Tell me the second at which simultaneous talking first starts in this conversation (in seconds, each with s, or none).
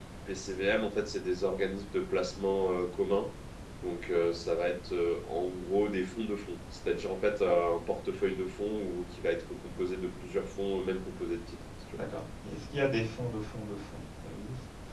none